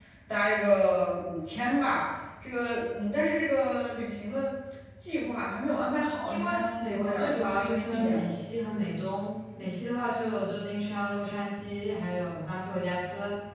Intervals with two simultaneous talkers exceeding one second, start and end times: 6.3-8.3

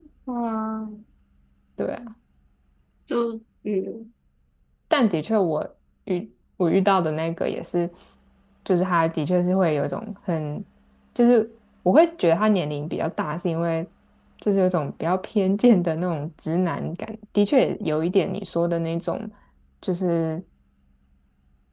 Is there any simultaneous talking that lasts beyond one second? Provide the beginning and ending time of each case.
none

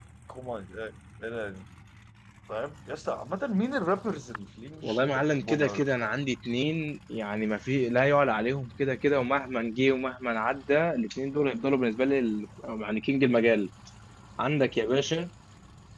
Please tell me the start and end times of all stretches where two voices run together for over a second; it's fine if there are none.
4.8-6.2

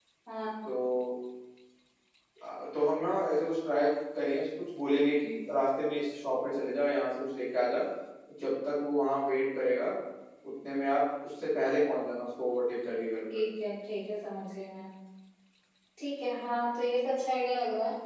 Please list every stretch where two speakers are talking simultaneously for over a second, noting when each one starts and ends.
none

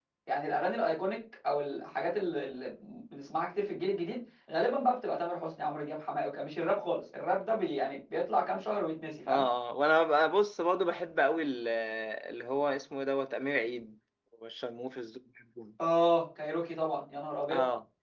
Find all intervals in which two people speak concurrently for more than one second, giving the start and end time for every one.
none

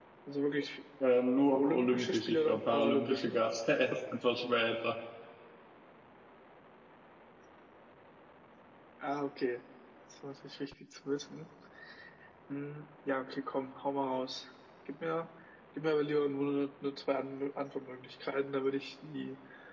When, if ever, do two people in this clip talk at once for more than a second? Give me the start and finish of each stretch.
1.5-3.4

